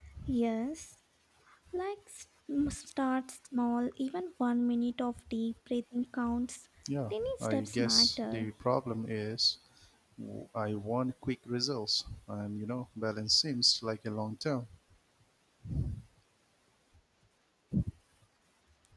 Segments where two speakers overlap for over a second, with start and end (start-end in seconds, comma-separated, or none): 7.1-8.5